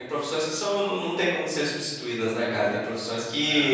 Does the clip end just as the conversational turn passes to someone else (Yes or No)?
No